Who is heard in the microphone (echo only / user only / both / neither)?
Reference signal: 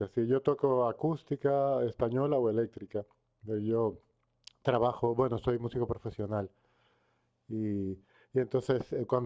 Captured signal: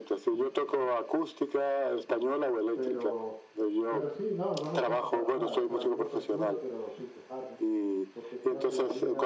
both